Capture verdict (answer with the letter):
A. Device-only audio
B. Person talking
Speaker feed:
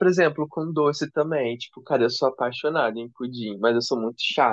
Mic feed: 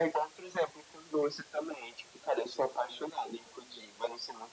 A